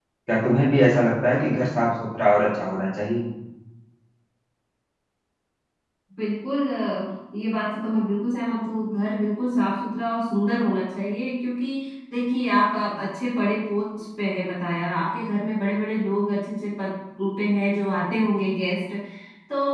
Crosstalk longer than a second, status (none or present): none